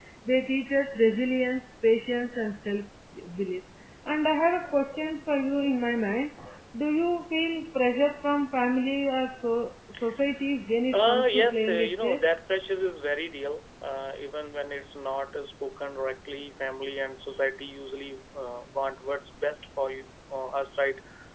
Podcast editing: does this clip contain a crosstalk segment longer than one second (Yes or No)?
Yes